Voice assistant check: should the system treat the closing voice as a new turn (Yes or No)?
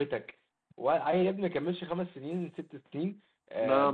No